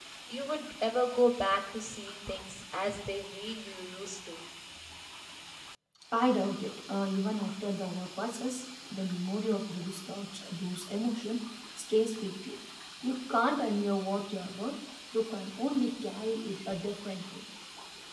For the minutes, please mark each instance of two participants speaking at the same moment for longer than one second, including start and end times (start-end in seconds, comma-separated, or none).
none